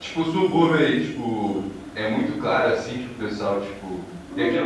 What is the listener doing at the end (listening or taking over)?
listening